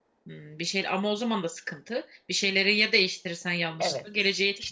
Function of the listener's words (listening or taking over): taking over